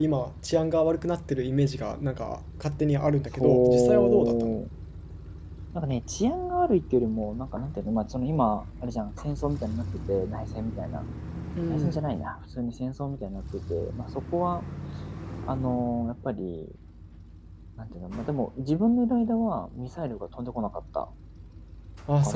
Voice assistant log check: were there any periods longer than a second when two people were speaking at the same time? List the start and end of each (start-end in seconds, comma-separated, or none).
3.3-4.6